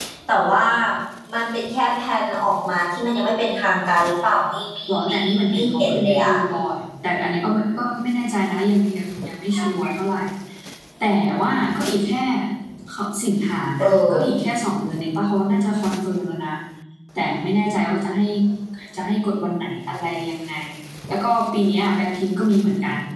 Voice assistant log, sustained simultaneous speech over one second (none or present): present